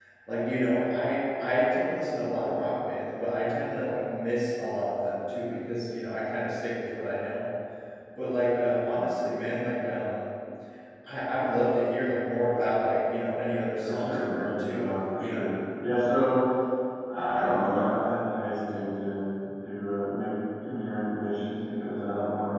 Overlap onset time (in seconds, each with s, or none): 13.8 s